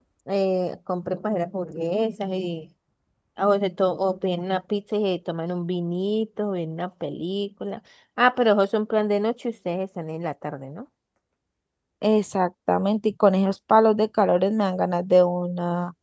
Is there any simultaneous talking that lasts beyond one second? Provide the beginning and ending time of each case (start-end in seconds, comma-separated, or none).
none